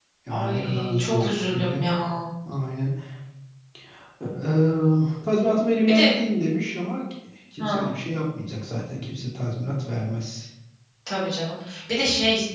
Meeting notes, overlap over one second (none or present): present